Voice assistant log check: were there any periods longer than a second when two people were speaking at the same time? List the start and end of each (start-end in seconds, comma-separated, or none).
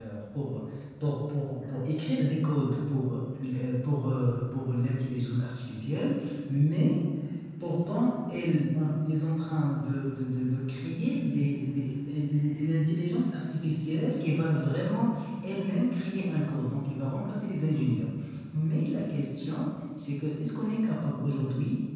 none